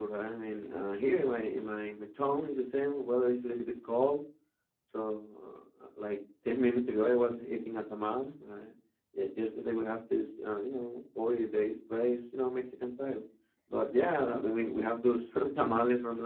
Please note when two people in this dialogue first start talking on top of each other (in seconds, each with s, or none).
none